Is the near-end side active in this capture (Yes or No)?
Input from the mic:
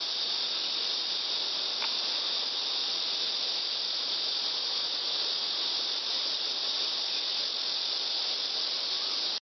No